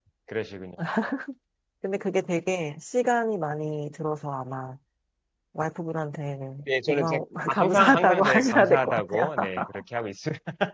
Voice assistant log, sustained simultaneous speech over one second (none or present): present